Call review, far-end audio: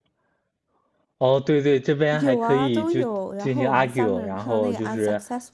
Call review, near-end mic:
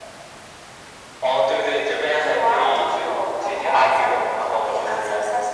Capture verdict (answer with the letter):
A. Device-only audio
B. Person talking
A